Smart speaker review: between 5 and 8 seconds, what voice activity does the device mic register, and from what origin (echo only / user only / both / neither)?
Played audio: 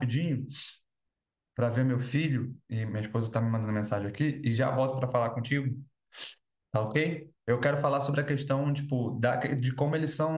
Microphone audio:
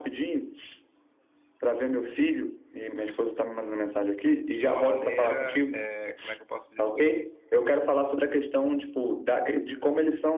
both